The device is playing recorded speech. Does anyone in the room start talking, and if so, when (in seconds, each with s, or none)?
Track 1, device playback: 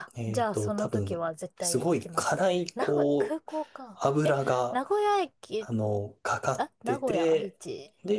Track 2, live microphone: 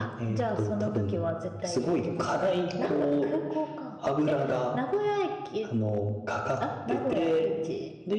none